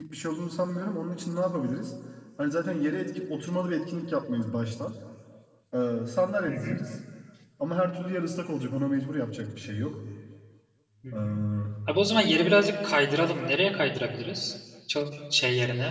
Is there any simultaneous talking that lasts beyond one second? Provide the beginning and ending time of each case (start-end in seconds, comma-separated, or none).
none